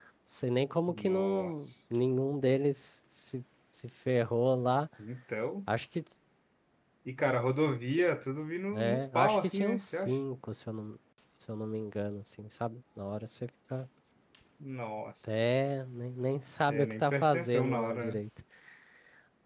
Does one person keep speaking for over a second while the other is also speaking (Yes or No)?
Yes